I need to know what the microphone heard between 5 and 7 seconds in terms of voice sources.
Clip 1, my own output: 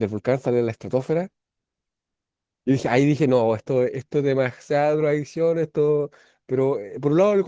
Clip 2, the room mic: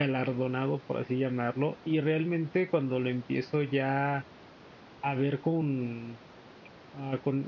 user only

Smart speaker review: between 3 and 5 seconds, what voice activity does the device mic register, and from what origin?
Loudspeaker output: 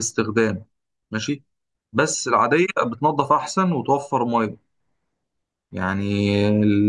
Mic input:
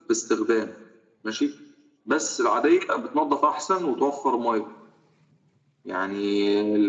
echo only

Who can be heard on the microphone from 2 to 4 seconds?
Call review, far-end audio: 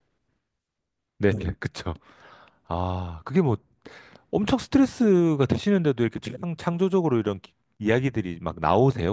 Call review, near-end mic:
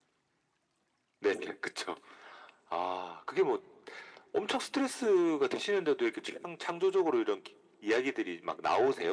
echo only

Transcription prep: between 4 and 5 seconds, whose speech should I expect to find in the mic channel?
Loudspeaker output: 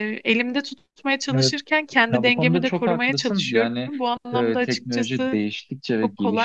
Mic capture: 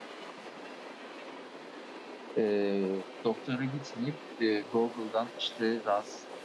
user only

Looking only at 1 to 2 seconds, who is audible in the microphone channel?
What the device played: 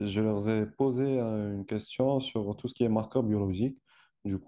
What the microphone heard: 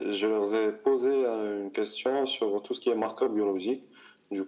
echo only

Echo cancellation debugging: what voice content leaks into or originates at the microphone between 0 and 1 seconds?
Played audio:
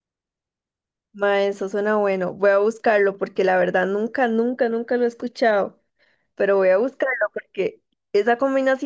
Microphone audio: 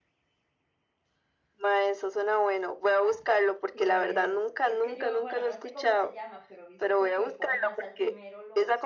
neither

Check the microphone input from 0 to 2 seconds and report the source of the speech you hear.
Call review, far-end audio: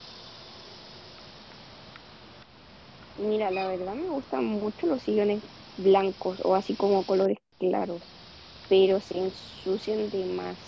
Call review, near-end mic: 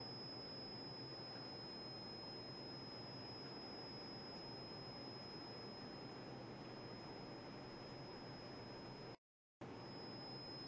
neither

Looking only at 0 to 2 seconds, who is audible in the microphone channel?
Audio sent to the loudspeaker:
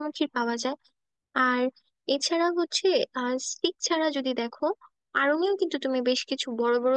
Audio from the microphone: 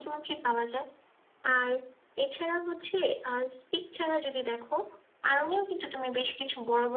echo only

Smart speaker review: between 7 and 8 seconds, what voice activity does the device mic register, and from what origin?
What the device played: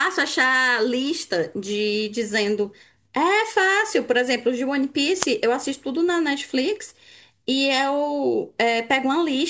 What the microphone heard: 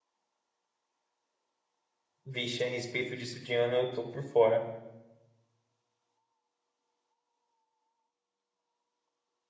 neither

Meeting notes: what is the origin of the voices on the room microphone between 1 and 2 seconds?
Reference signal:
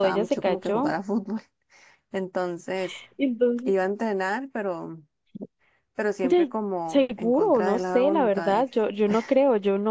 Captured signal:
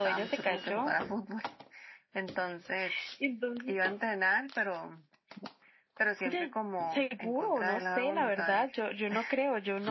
echo only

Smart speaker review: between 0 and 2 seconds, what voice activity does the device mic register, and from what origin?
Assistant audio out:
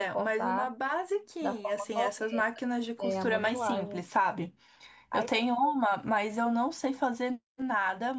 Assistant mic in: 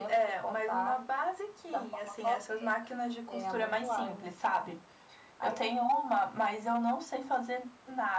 echo only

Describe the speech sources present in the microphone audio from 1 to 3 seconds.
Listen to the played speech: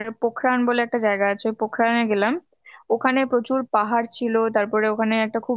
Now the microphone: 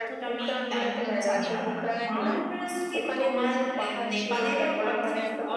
both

